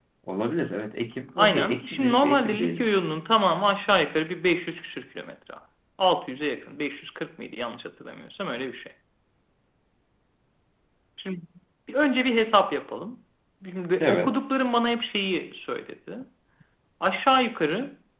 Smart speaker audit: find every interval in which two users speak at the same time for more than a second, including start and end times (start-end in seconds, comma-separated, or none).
1.4-2.9